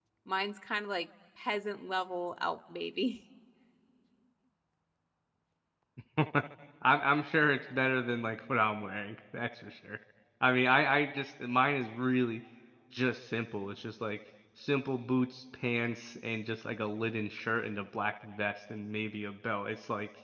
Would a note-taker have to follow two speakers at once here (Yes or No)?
No